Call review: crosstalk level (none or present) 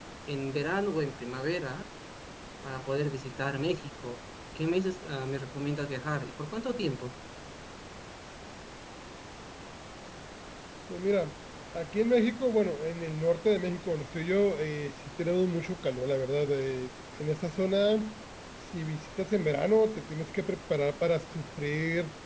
none